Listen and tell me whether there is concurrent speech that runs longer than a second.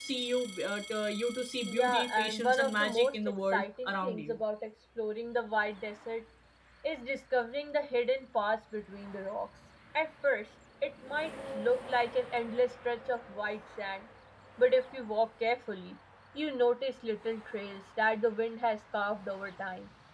Yes, from 1.6 s

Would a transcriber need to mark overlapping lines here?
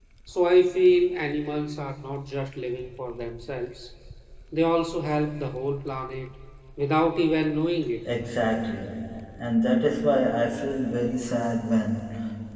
No

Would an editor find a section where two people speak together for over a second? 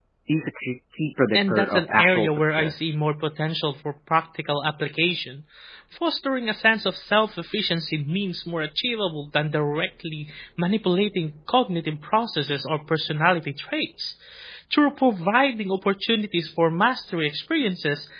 Yes, from 1.3 s

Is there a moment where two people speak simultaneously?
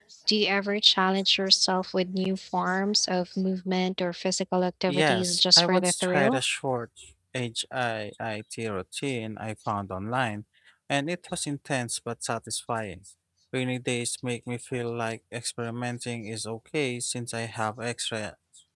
Yes, from 4.9 s

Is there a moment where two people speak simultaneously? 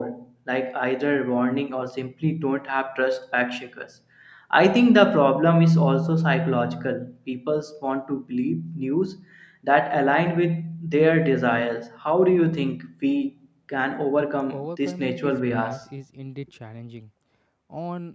Yes, from 14.5 s

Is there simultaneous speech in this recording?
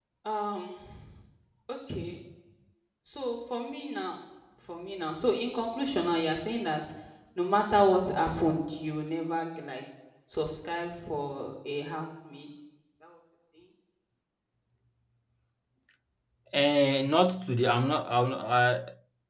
No

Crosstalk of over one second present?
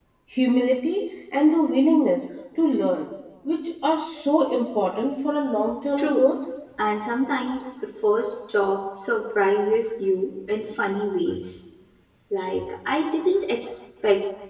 No

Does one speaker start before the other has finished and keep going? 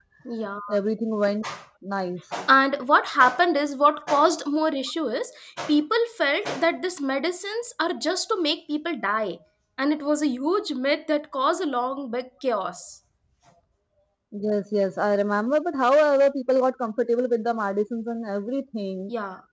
No

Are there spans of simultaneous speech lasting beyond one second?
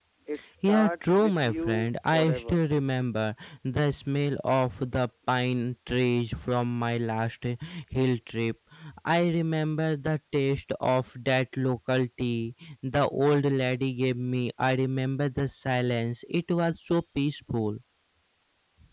Yes, from 0.7 s

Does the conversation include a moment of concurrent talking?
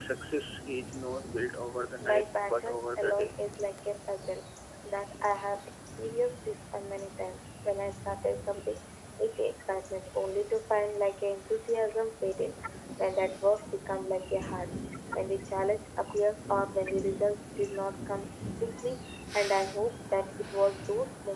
Yes, from 2.0 s

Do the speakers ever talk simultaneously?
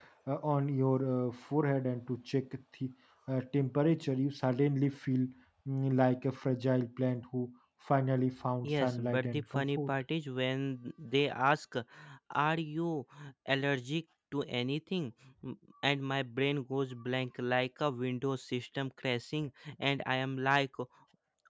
Yes, from 8.6 s

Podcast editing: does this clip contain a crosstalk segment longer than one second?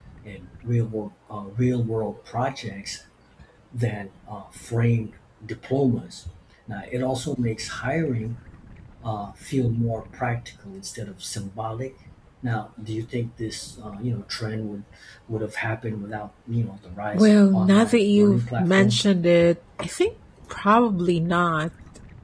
Yes, from 17.1 s

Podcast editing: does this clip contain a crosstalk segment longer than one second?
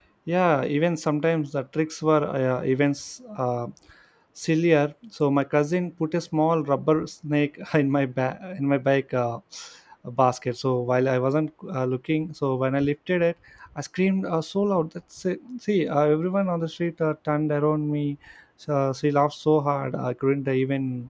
No

